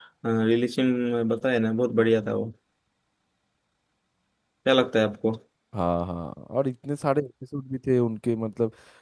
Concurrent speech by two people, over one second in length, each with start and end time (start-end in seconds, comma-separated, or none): none